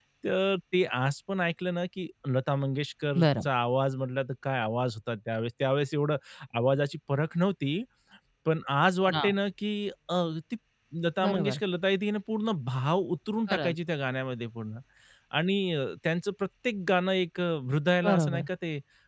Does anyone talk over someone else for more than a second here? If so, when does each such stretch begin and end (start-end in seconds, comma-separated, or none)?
none